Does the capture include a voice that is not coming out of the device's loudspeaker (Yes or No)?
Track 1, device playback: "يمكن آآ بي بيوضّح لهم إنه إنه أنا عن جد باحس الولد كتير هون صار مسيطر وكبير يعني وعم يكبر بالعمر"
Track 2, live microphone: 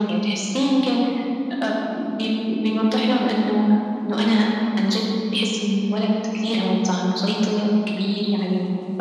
No